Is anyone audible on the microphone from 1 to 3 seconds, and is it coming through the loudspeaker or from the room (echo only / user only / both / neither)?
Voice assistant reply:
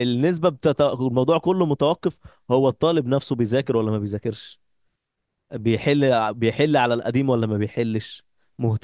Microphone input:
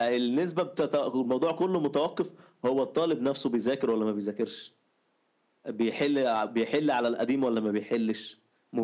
echo only